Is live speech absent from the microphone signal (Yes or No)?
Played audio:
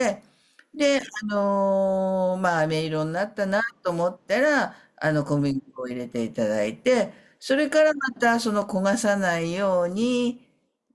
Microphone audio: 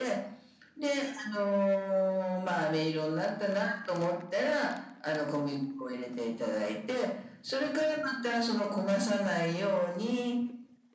Yes